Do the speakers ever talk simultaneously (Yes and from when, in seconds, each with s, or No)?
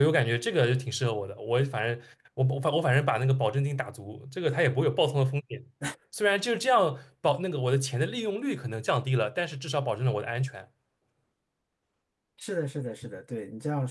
No